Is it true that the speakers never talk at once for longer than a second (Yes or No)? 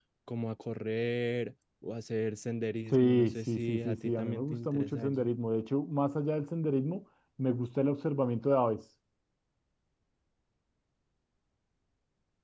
No